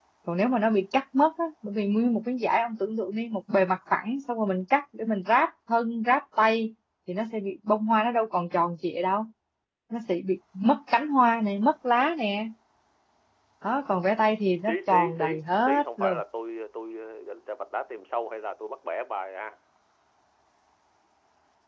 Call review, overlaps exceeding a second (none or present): present